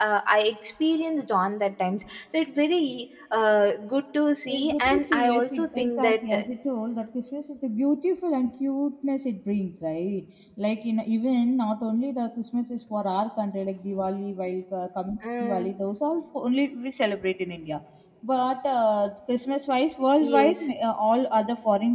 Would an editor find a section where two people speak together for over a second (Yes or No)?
Yes